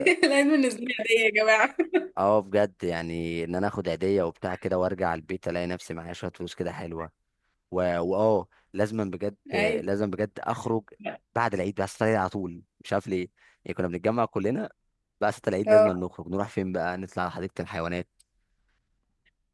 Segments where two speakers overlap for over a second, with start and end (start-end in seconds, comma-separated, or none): none